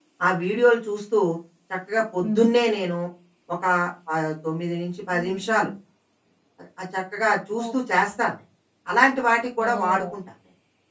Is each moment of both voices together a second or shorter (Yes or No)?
Yes